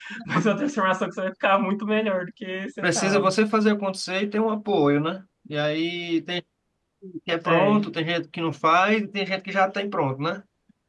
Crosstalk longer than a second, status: none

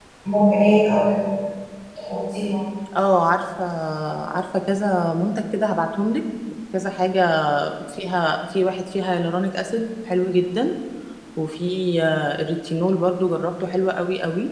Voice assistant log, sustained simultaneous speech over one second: none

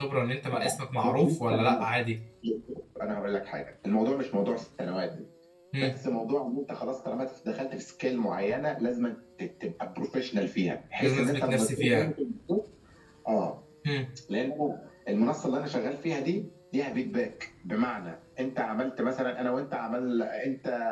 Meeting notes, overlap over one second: present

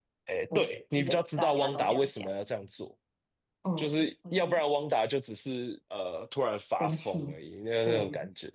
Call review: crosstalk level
present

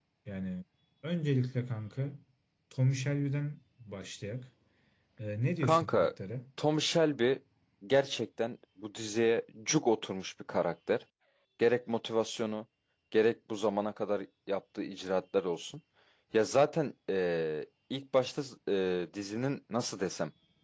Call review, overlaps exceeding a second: none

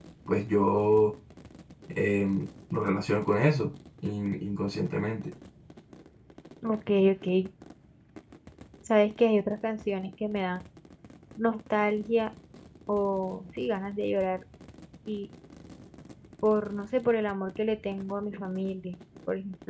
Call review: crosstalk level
none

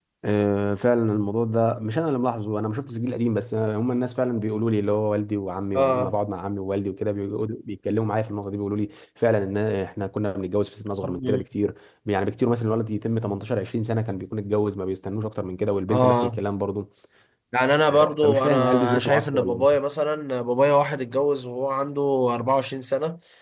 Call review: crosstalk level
present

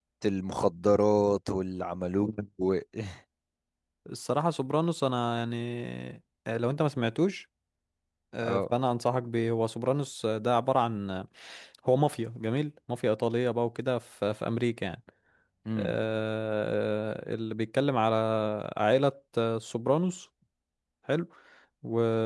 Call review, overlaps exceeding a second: none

